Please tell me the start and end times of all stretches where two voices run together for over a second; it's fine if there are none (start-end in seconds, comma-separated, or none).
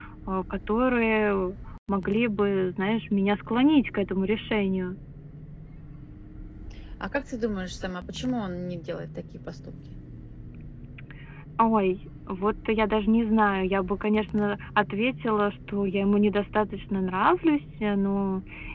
none